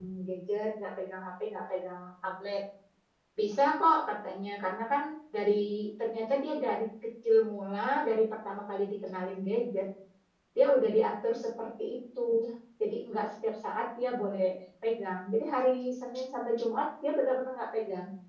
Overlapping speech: No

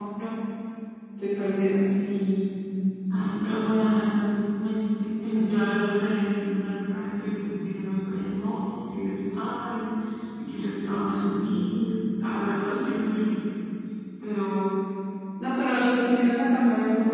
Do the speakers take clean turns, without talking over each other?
Yes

